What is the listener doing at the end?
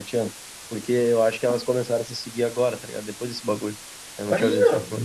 taking over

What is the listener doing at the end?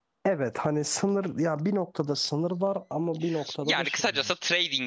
taking over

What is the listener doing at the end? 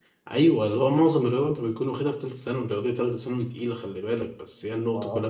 listening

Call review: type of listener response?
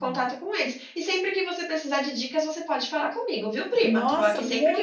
taking over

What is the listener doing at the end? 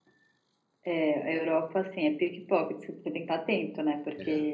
listening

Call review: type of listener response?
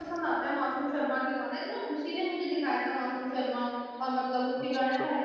listening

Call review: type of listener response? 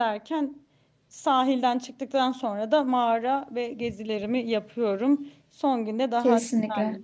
listening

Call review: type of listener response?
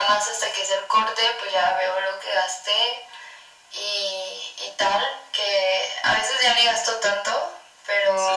listening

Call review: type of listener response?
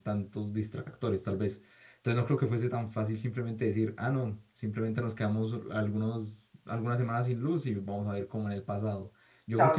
taking over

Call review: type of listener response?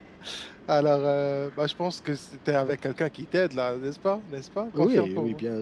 taking over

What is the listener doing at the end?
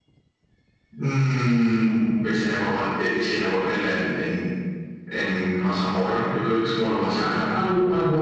taking over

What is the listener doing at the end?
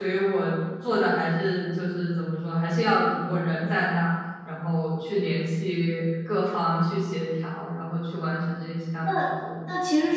taking over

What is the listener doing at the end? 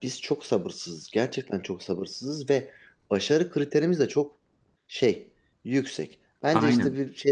listening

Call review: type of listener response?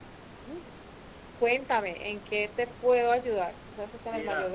taking over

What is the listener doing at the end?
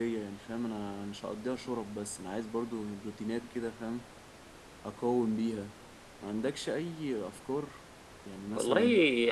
taking over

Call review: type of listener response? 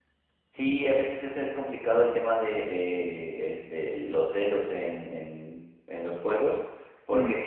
listening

